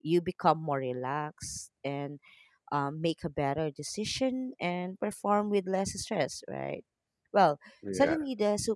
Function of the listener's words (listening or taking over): listening